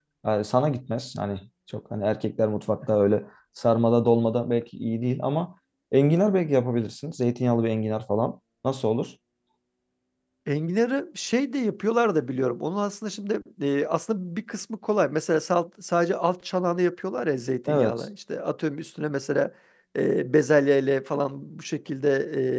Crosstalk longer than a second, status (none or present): none